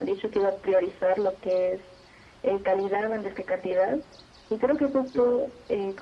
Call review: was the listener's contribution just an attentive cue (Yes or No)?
Yes